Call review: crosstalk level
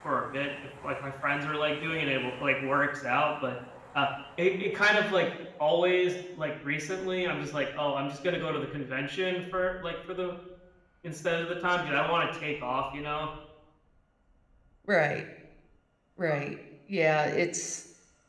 none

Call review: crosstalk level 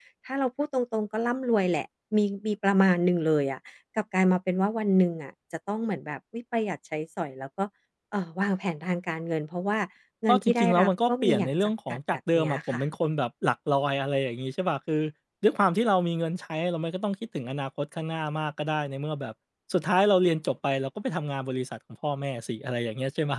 present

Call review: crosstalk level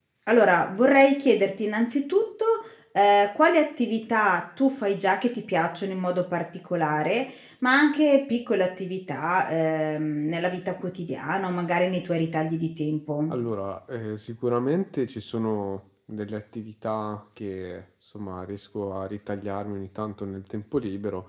none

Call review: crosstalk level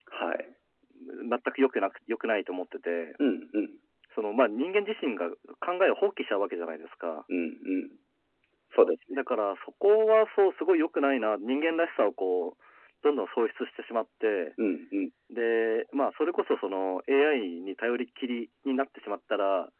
none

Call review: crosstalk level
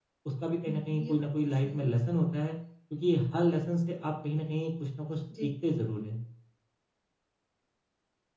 present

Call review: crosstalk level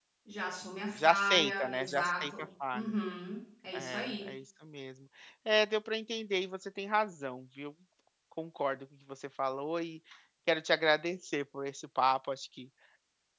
present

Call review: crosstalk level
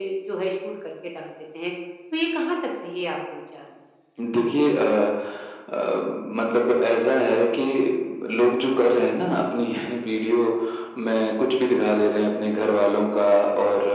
none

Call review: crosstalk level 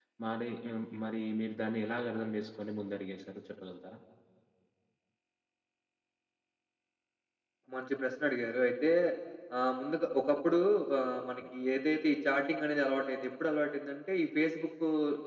none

